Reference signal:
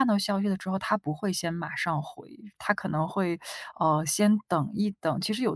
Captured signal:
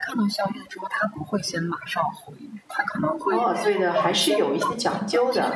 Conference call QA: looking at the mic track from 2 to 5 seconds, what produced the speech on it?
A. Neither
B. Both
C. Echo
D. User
B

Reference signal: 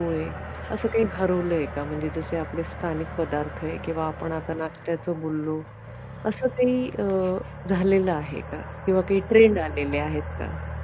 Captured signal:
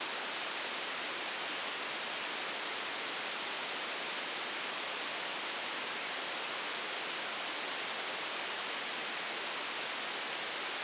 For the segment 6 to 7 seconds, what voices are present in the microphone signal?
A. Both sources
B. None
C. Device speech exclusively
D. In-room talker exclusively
B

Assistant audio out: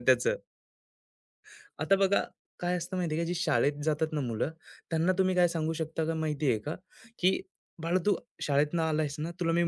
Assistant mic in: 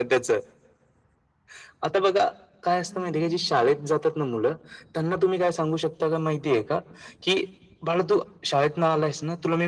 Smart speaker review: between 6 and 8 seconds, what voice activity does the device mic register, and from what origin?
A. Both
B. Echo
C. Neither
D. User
B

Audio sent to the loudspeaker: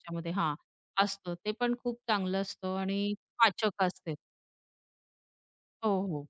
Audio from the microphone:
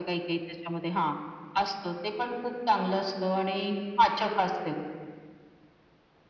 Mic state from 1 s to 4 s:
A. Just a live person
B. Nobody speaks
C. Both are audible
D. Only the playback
D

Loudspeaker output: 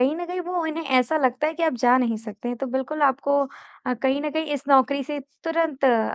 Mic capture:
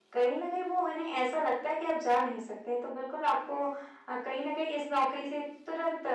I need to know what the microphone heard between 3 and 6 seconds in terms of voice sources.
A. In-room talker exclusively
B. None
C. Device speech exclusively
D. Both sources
C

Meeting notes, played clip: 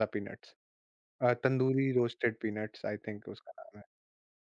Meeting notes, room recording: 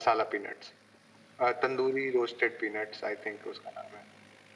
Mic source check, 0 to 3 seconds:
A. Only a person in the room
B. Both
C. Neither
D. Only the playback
D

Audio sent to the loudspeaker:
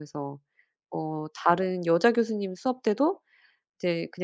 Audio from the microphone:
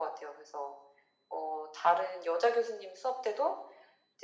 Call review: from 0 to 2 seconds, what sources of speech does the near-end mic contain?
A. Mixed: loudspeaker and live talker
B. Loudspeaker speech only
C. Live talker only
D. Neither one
B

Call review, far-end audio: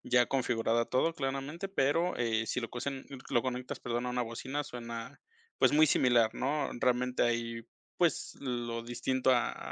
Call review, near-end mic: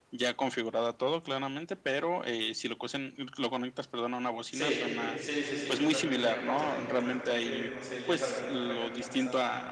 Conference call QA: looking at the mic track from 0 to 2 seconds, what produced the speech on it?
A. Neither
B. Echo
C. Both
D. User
B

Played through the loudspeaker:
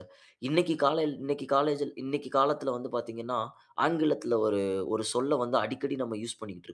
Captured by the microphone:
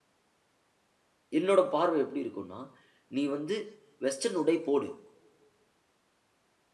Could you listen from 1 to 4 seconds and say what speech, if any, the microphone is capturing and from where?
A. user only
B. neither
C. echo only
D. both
A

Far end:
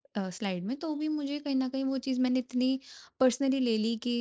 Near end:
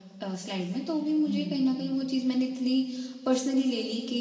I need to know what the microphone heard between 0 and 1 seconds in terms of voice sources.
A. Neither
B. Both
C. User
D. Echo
D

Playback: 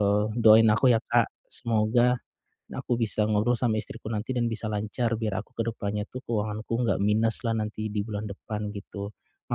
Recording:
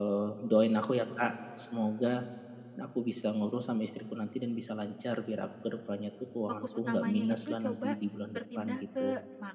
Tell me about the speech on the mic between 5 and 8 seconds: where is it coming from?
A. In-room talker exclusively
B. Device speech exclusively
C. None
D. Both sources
D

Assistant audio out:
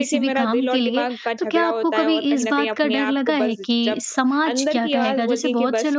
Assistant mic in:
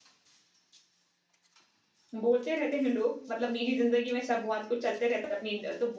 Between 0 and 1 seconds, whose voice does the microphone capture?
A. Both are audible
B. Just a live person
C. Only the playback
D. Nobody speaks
D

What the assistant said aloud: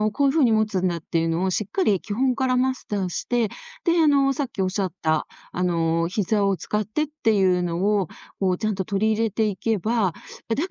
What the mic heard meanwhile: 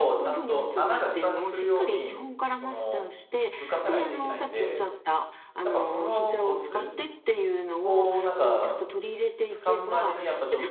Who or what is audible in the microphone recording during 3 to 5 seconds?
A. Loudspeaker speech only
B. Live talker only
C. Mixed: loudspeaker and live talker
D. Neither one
C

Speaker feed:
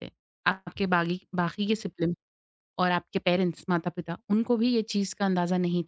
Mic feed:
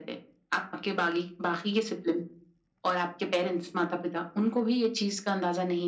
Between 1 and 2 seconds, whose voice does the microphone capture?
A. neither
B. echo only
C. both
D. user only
B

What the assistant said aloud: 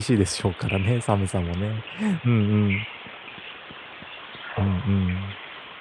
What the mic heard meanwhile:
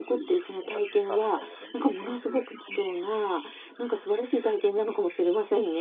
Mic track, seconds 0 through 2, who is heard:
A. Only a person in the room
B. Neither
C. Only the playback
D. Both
D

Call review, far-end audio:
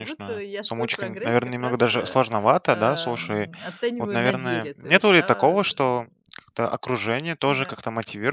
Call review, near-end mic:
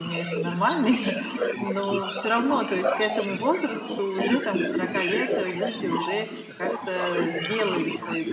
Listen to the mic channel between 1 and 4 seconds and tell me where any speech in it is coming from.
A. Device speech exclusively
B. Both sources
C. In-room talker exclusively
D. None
B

